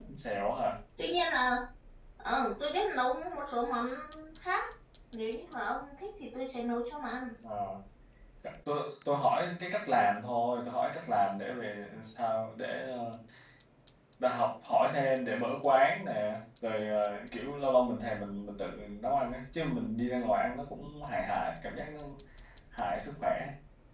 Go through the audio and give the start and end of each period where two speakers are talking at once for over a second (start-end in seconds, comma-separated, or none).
none